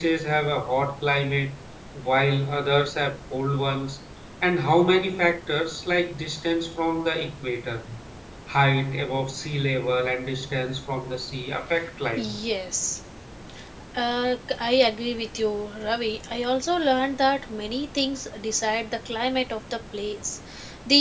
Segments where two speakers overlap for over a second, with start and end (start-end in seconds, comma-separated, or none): none